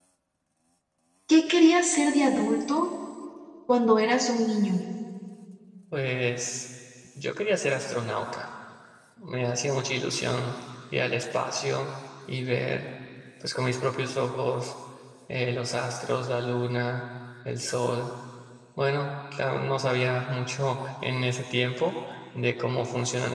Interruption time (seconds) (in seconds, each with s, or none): none